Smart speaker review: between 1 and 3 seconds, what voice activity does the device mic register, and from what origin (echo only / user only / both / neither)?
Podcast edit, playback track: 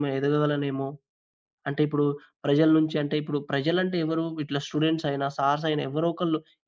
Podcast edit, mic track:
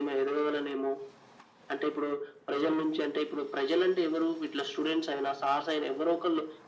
echo only